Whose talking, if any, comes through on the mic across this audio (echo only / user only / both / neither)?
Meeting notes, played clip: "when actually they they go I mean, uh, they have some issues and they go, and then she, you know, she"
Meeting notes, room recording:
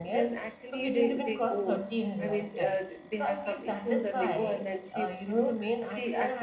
both